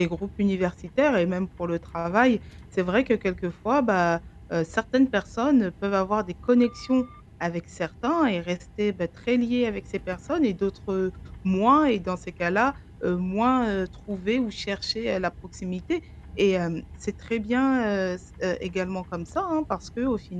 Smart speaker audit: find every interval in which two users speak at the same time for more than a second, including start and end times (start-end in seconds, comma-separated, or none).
none